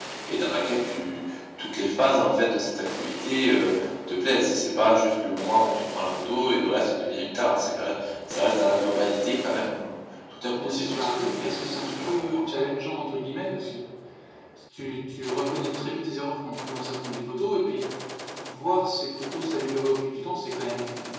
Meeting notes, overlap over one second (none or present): present